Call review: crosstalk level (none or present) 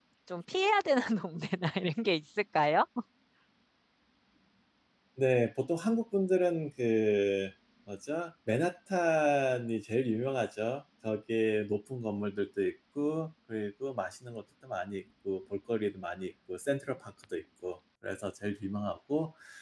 none